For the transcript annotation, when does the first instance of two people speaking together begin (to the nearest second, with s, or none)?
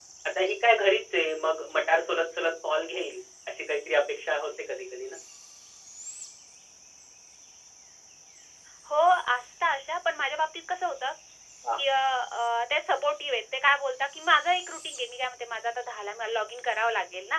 none